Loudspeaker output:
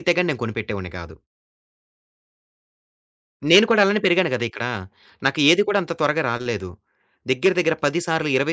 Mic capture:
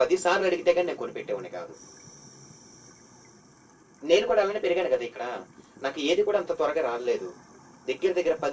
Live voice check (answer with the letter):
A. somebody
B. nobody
B